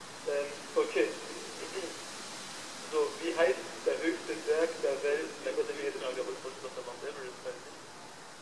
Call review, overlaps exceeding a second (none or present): present